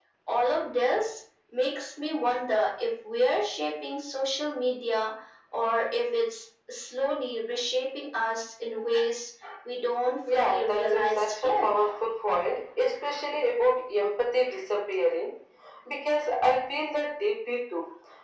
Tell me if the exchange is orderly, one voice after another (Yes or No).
No